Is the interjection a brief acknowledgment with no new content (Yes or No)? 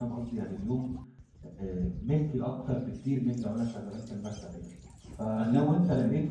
Yes